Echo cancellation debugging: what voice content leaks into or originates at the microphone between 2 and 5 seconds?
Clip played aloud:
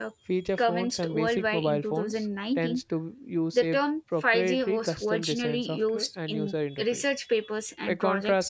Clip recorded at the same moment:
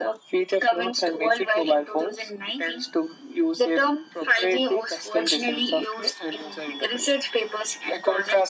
echo only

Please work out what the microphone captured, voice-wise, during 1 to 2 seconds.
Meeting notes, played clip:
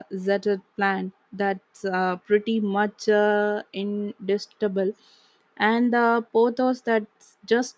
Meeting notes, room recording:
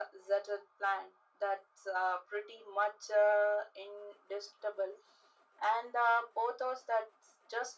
echo only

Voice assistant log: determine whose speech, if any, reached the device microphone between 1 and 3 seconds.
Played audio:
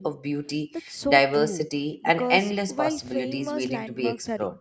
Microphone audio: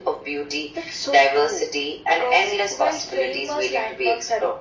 echo only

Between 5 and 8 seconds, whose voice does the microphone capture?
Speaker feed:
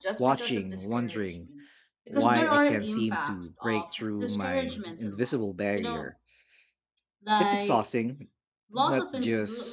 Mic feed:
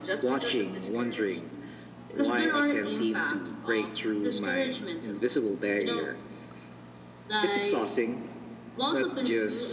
echo only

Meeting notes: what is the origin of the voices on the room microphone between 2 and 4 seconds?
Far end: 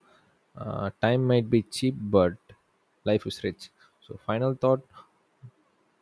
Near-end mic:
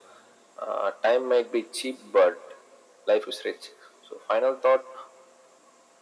echo only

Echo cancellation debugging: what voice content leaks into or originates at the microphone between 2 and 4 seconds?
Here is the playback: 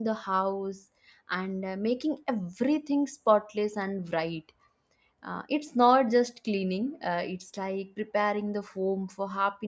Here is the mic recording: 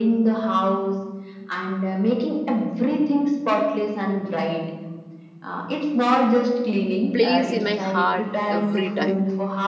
echo only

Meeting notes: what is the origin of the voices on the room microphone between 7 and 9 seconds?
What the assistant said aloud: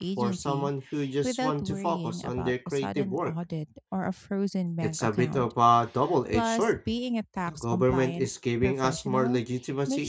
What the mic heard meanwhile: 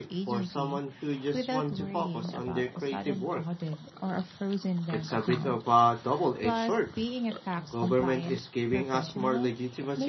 echo only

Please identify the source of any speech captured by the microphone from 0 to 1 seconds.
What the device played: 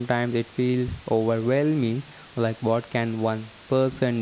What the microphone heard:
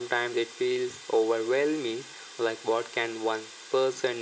echo only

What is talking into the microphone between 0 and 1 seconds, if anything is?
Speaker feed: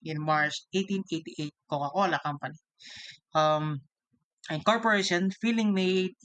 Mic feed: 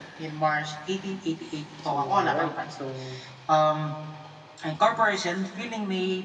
echo only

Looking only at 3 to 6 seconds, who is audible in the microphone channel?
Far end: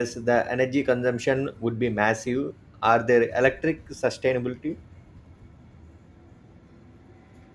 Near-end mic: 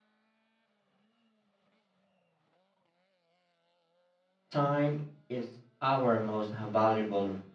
user only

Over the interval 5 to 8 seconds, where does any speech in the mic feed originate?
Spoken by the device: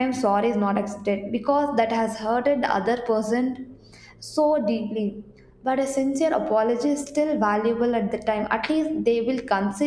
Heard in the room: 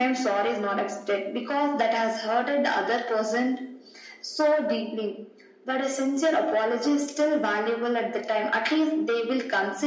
echo only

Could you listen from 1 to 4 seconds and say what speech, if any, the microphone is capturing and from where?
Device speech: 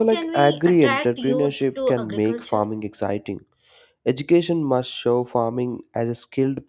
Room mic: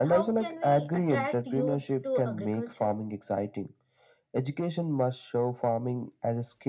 echo only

